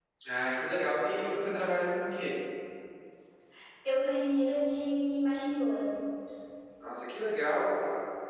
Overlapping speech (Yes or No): No